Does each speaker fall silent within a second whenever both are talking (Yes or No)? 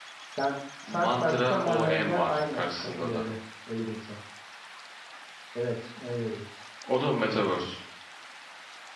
No